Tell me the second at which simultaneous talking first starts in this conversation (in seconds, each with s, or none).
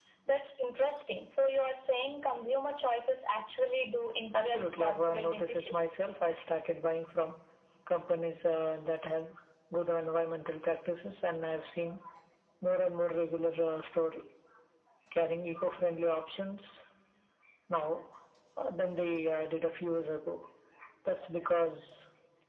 4.3 s